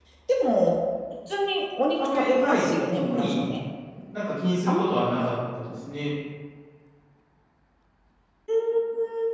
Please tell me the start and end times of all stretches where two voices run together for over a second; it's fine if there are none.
2.0-3.5

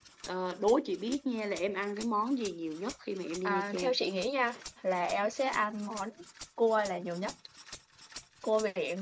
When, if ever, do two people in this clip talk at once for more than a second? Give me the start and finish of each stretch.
none

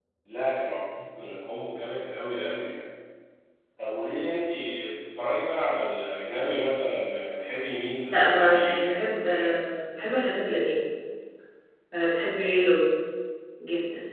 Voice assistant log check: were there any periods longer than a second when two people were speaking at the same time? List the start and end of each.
8.1-9.6

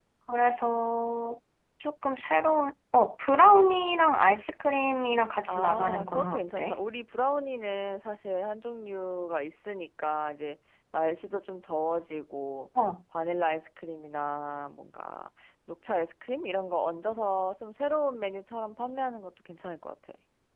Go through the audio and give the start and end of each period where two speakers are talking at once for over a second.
5.5-6.8

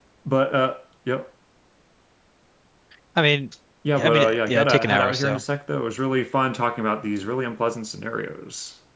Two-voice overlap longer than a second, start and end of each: 4.0-5.4

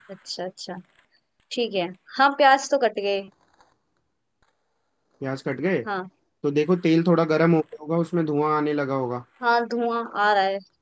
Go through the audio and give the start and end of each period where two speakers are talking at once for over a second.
none

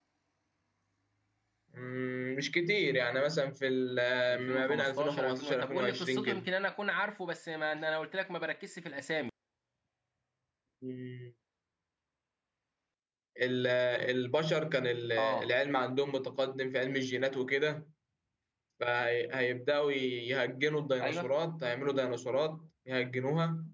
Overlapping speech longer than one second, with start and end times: 4.3-6.5

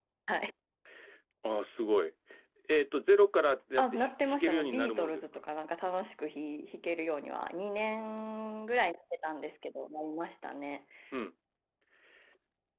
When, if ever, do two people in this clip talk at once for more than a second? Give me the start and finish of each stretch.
3.8-5.2

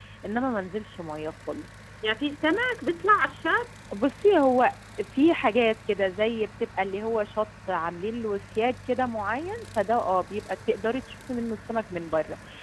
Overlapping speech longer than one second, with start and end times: none

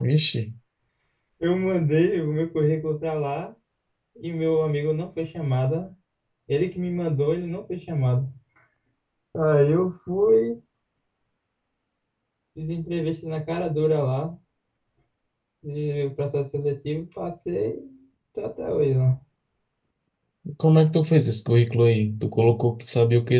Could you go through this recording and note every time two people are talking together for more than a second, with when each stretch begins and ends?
none

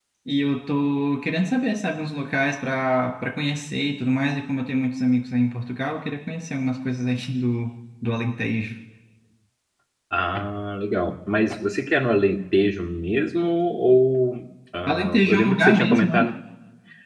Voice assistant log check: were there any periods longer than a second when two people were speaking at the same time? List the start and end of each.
14.9-16.2

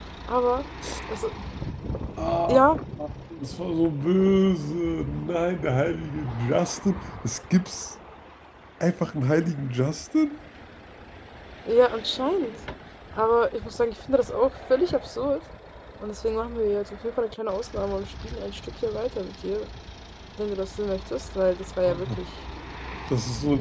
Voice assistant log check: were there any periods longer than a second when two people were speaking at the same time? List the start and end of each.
none

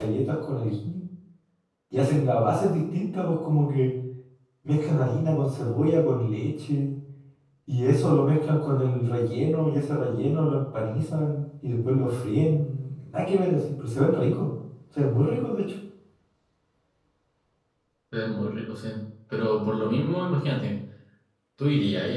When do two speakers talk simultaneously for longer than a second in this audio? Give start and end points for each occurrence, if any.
none

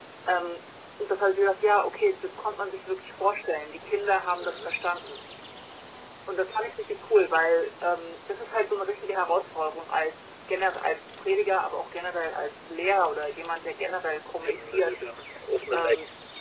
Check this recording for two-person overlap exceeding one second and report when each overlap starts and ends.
none

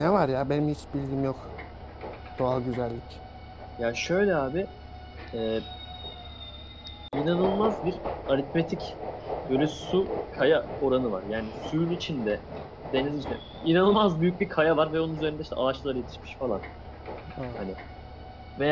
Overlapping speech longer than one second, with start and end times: none

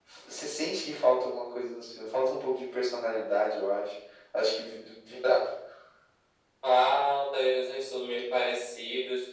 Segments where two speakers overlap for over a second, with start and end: none

